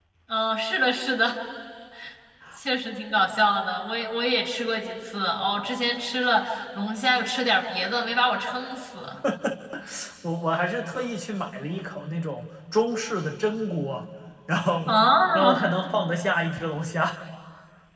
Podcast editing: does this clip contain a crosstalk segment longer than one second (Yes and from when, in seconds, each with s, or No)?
No